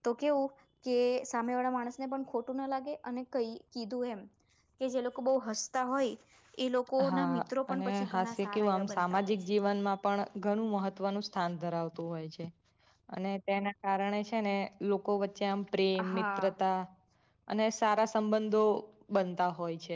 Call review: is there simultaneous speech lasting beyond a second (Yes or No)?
Yes